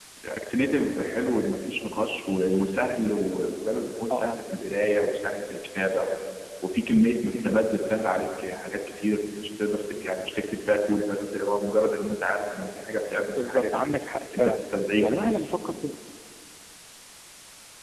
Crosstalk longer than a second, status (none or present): none